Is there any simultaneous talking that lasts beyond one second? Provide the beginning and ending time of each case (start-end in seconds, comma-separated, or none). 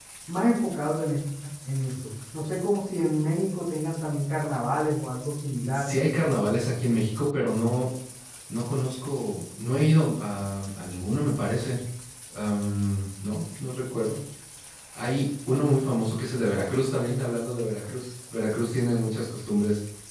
none